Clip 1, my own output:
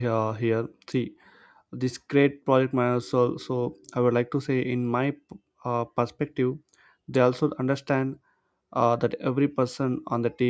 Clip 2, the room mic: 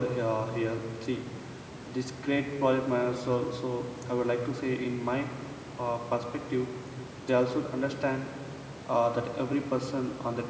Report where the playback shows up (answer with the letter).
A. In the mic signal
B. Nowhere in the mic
A